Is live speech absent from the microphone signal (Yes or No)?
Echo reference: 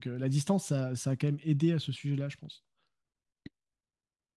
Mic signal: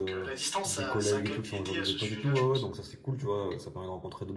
No